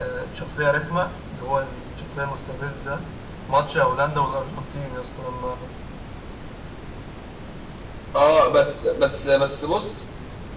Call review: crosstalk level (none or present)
none